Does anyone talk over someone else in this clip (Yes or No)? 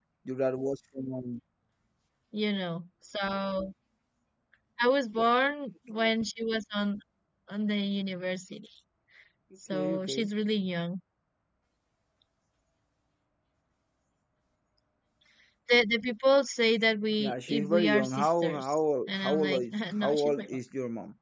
Yes